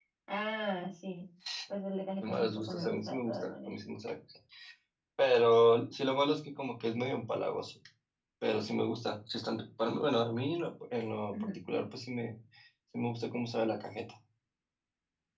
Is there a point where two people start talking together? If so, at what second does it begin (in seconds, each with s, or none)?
2.2 s